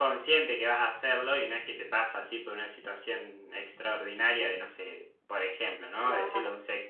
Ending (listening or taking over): listening